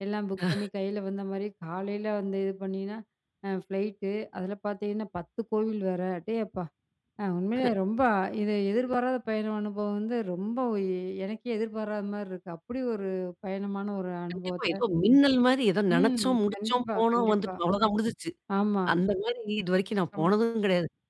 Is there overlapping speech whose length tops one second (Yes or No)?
Yes